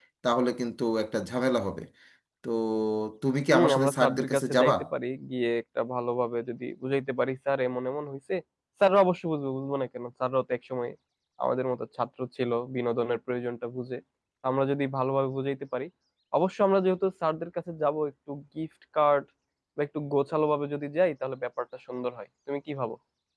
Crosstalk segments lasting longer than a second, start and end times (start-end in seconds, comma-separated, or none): 3.5-4.7